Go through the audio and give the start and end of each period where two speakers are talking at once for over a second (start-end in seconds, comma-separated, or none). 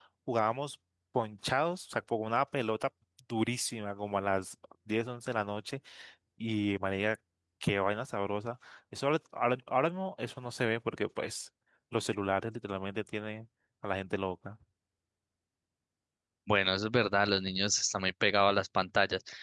none